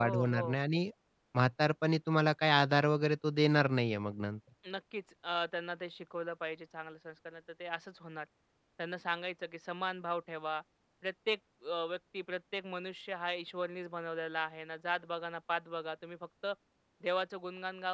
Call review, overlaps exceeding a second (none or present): none